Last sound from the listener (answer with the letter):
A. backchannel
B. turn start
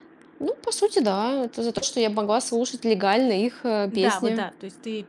B